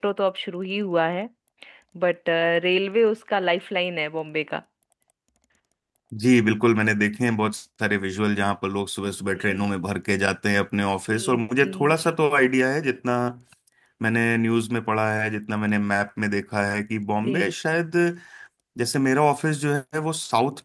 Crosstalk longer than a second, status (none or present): none